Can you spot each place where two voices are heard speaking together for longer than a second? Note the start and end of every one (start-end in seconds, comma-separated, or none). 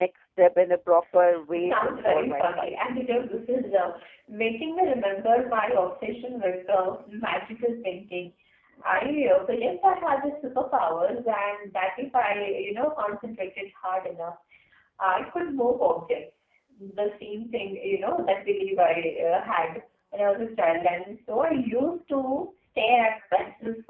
1.5-2.8